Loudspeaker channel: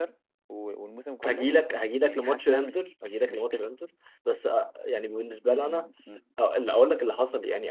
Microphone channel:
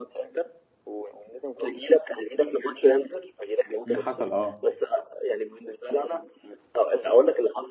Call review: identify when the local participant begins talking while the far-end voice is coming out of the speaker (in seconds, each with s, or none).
3.9 s